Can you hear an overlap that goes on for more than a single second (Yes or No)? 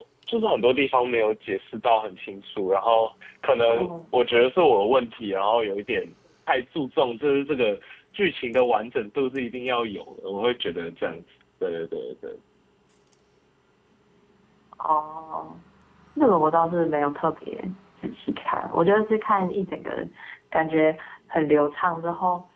No